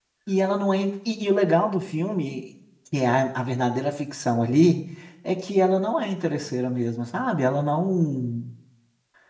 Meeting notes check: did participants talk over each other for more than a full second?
No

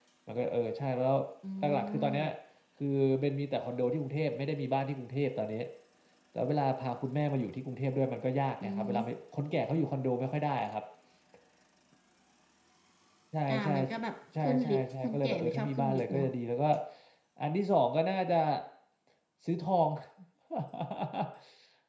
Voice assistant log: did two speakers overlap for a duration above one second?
Yes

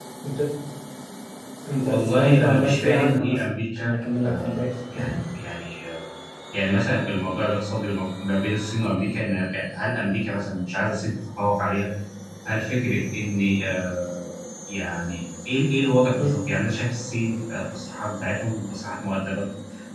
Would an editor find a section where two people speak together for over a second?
Yes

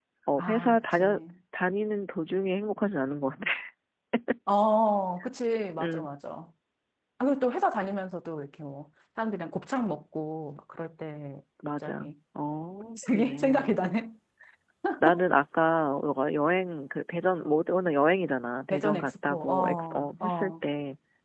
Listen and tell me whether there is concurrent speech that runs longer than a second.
Yes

